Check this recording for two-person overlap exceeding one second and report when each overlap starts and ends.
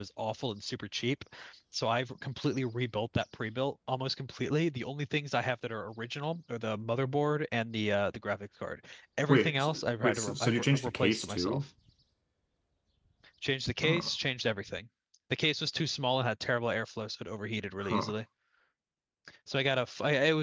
9.3-11.6

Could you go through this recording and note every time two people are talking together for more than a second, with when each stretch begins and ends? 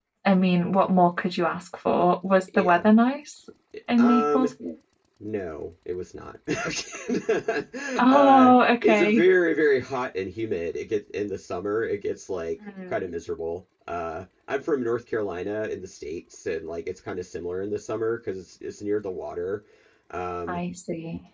8.0-9.2

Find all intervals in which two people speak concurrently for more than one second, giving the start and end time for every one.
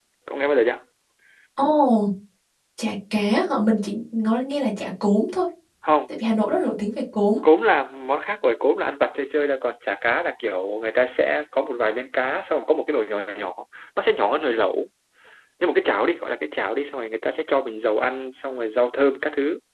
none

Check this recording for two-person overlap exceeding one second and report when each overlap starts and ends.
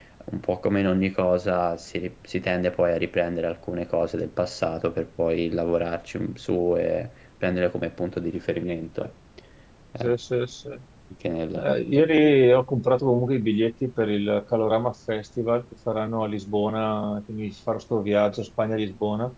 none

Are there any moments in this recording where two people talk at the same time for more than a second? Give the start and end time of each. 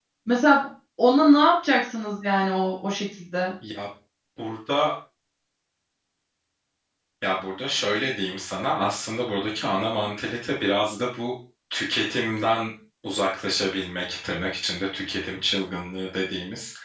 none

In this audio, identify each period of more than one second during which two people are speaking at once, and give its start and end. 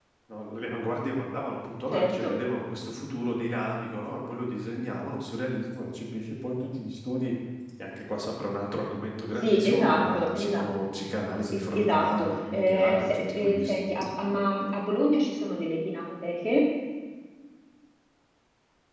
9.4-10.6, 11.5-13.9

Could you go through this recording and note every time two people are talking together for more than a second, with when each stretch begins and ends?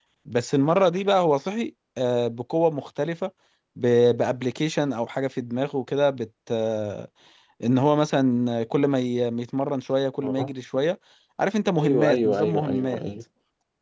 11.8-13.0

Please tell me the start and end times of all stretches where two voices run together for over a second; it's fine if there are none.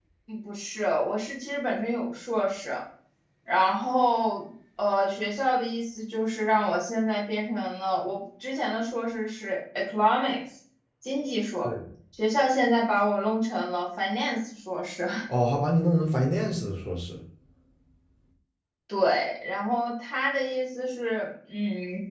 none

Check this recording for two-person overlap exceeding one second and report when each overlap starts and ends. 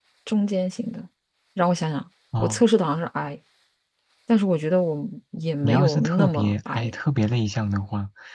5.6-6.9

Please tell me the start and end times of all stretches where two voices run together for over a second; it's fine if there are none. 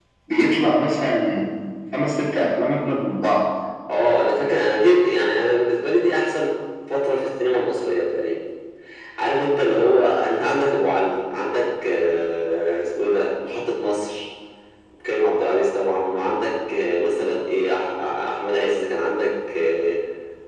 none

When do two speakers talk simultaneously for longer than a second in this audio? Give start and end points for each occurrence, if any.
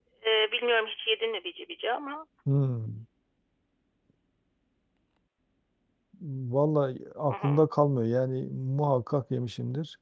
none

